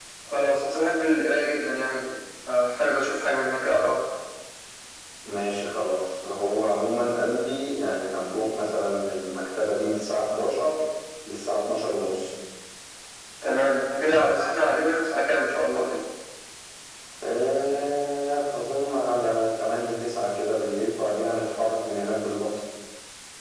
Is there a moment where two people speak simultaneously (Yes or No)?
No